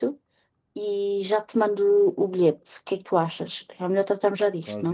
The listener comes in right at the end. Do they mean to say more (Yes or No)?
Yes